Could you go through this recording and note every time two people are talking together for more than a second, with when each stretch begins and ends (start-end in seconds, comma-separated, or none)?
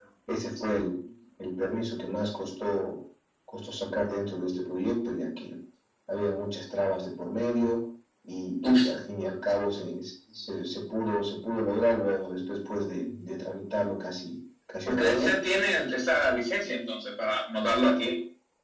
none